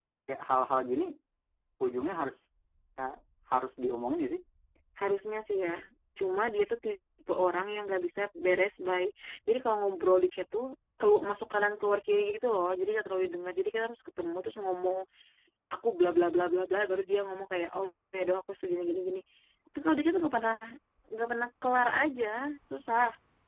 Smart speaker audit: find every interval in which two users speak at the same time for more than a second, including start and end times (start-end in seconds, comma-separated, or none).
none